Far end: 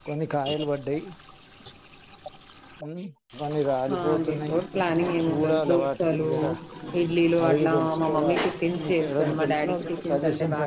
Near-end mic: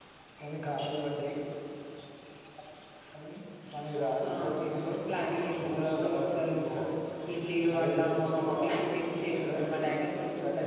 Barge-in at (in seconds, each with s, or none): none